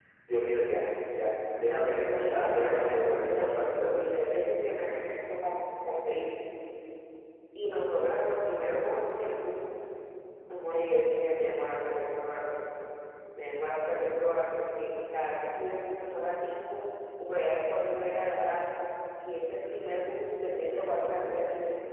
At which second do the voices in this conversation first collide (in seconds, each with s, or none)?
2.0 s